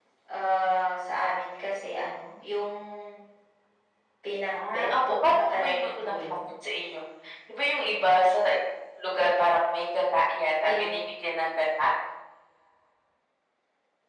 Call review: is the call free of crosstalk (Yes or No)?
No